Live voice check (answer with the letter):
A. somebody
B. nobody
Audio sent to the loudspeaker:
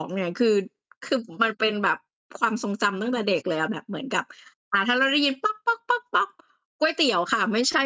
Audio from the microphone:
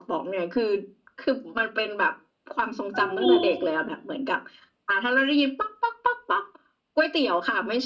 A